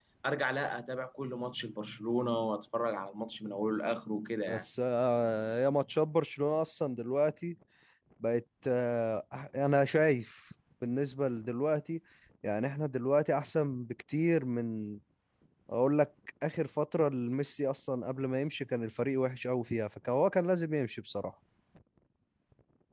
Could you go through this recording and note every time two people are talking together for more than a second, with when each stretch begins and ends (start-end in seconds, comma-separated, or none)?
none